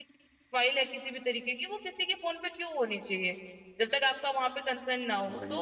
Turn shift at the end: No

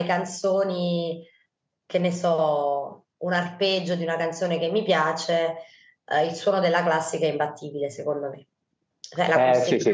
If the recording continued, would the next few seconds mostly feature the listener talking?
Yes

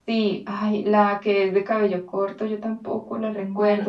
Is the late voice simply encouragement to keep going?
Yes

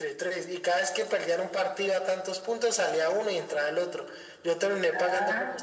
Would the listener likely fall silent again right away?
Yes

